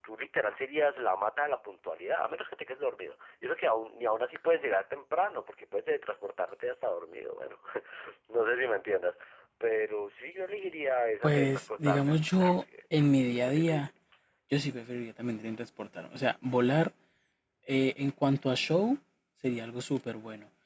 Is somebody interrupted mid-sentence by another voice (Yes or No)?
Yes